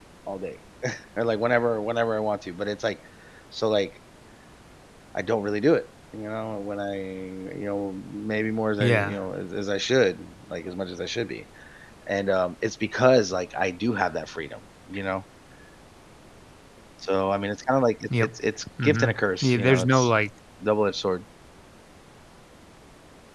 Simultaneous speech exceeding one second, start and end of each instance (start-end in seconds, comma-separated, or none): 18.8-20.1